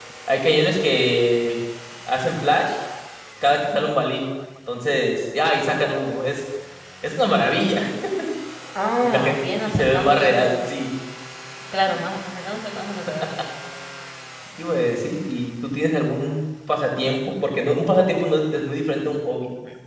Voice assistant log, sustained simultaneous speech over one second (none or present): present